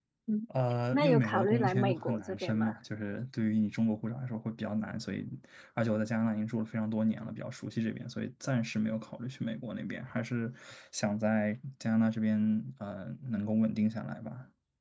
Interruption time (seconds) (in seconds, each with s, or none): 0.9 s